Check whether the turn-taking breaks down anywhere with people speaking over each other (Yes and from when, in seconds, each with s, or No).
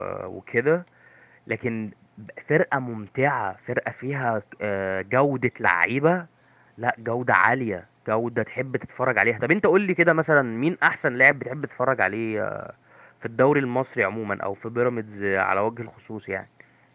No